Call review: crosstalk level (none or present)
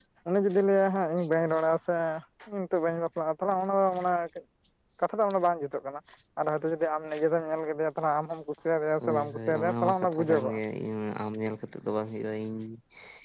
present